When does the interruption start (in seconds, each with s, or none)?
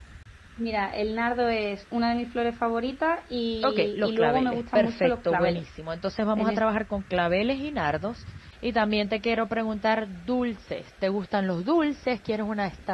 3.6 s